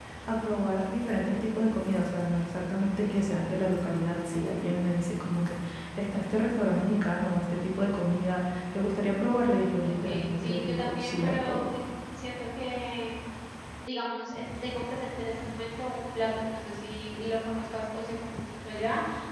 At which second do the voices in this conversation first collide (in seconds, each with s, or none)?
9.8 s